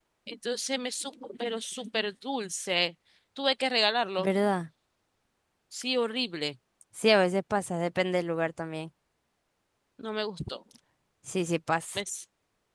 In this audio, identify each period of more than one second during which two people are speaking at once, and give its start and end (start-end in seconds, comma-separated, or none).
none